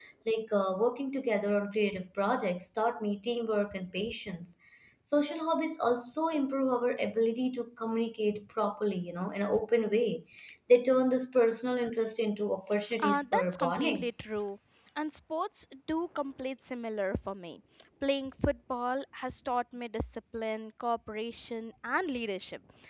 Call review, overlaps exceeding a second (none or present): present